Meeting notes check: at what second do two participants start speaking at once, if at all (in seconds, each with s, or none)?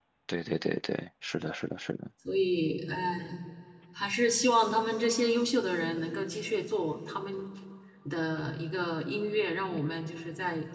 none